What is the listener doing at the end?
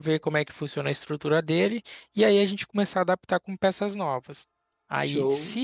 listening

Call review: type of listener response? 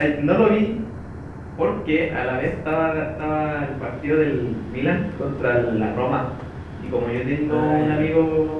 listening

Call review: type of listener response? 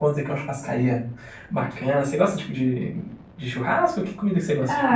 taking over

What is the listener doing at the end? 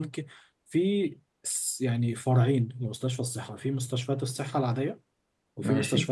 listening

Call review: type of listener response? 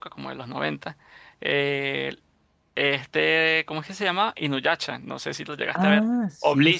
taking over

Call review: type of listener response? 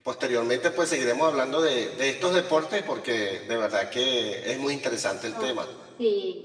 taking over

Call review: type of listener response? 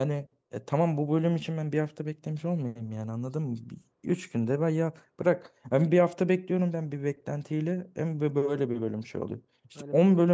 listening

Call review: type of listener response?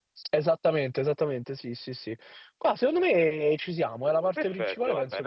taking over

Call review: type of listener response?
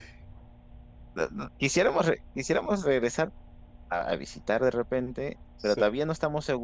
listening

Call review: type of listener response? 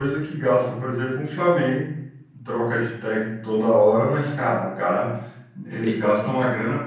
listening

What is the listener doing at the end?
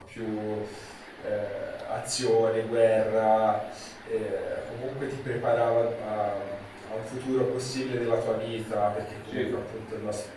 listening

